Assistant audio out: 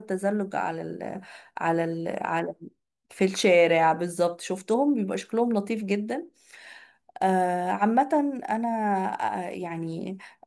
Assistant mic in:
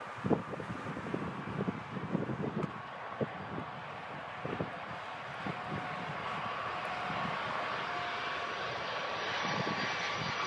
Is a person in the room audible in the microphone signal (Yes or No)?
No